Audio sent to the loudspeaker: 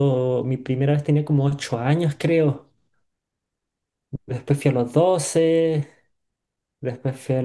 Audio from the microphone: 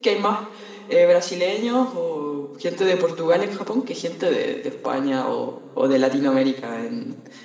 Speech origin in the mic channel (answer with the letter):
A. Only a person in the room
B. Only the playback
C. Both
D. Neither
A